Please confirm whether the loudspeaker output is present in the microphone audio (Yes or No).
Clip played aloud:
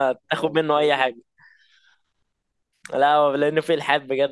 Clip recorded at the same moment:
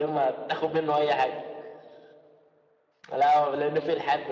Yes